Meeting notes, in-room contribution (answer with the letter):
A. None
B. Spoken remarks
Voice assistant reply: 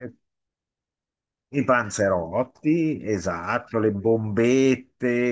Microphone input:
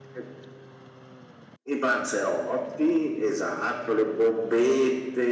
A